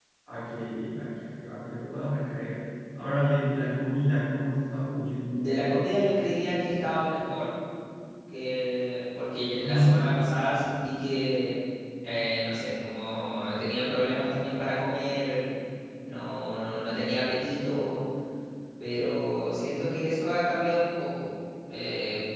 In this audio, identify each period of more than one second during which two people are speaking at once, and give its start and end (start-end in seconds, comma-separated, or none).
none